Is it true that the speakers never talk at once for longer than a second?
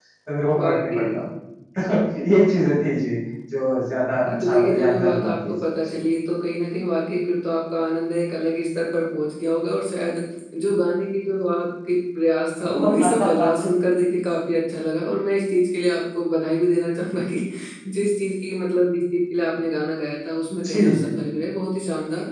No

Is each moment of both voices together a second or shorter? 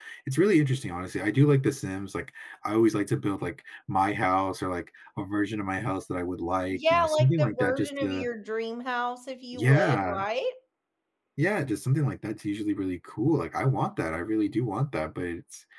No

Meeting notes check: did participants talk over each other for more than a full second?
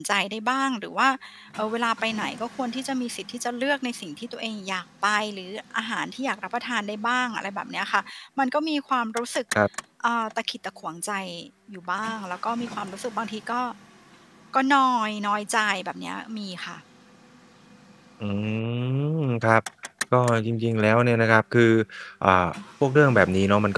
No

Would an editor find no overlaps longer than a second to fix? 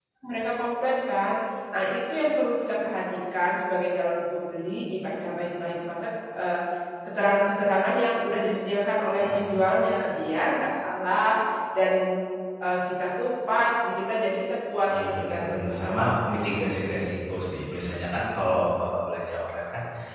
No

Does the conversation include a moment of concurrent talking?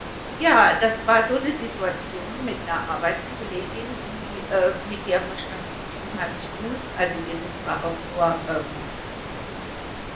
No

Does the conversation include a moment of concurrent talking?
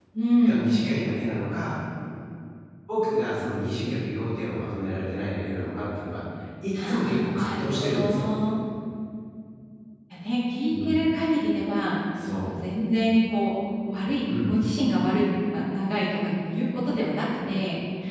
Yes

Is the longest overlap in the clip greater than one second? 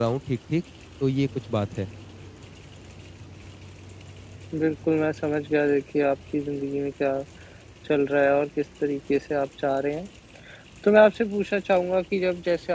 No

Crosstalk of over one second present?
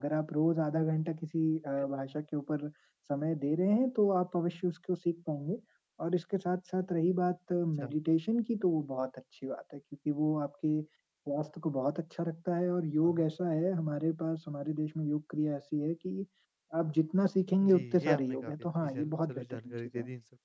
Yes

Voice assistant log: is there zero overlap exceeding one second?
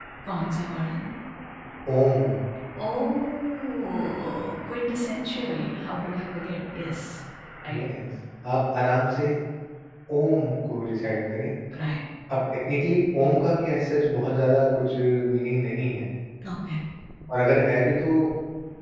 Yes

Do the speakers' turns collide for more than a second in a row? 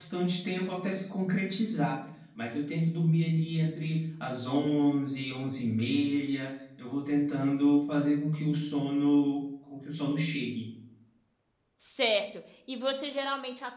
No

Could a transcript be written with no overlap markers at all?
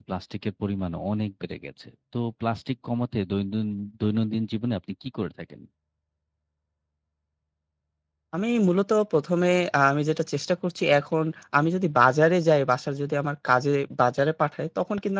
Yes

